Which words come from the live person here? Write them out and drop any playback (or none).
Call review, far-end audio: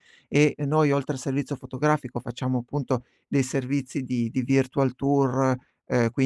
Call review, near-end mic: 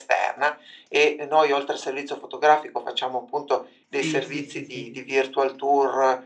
Sì, sì, sì, sì.